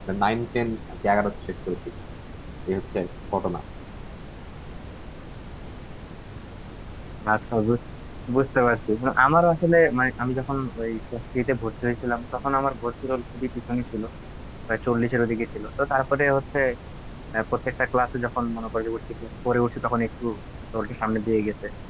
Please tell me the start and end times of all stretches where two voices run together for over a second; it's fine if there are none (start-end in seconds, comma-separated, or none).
none